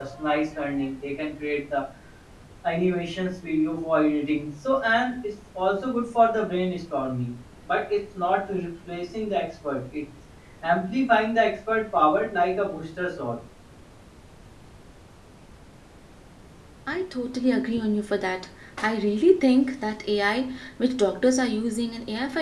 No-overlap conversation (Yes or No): Yes